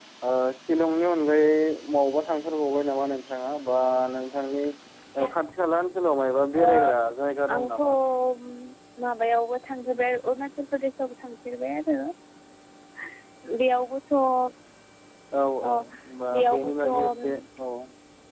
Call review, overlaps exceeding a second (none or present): present